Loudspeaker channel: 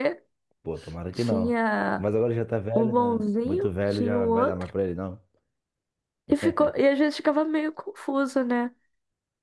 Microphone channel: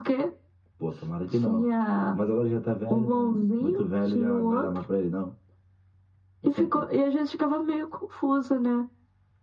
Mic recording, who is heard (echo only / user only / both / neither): echo only